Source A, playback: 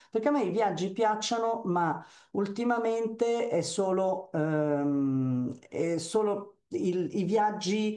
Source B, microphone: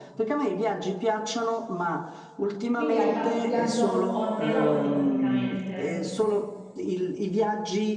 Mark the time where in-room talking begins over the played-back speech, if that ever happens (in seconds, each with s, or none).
2.7 s